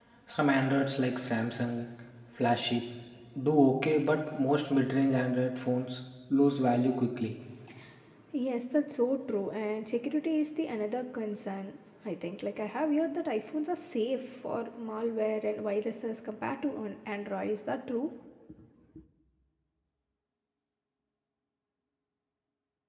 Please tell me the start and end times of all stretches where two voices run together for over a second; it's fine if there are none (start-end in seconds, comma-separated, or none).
none